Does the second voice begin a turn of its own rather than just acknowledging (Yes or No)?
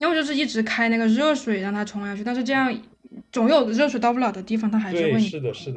Yes